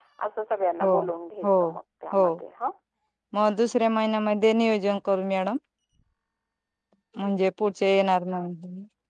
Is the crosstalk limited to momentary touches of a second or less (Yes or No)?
Yes